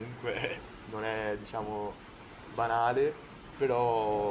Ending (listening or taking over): listening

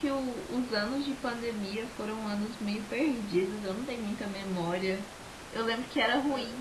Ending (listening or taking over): listening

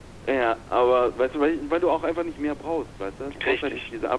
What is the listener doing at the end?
listening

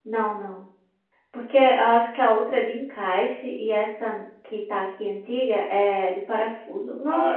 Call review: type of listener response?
taking over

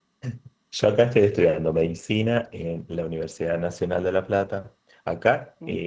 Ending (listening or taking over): listening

